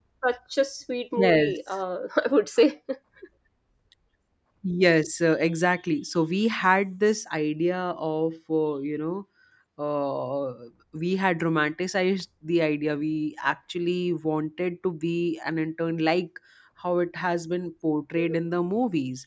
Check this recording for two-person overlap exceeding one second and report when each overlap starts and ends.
none

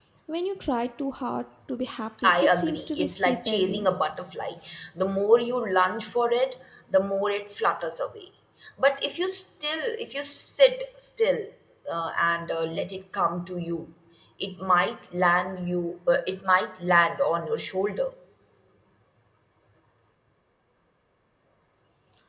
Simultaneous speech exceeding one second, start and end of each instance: 2.2-3.9

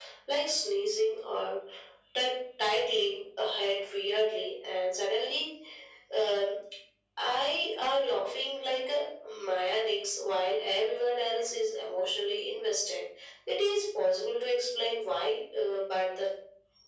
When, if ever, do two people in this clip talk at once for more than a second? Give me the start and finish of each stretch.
none

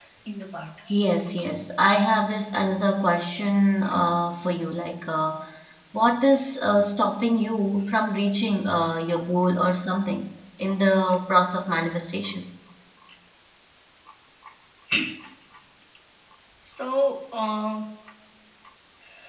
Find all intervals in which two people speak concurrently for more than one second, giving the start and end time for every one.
none

